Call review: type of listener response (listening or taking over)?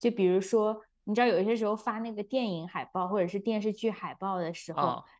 listening